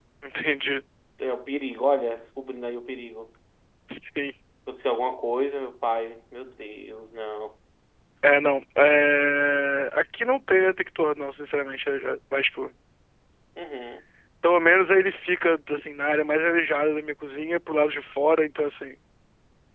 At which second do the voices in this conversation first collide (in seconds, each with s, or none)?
none